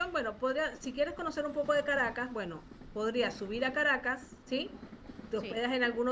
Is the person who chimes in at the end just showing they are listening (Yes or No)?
Yes